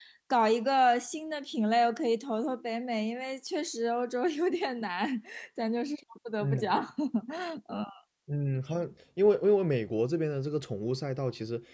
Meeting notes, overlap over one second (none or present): none